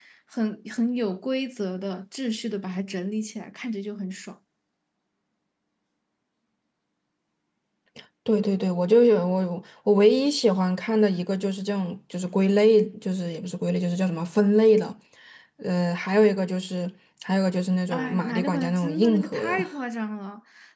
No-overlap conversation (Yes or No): No